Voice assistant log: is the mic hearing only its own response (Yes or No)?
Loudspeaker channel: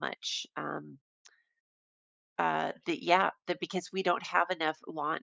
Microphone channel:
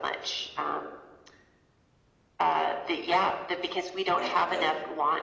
No